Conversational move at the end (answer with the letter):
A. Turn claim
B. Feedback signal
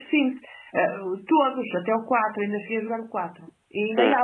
B